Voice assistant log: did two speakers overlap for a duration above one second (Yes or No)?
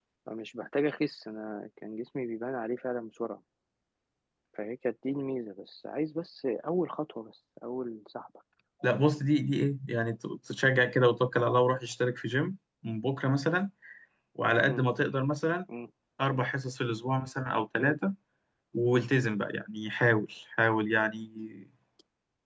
No